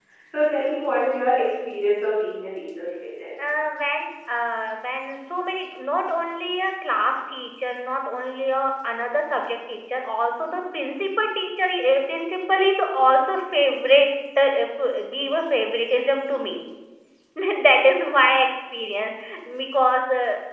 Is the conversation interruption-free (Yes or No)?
Yes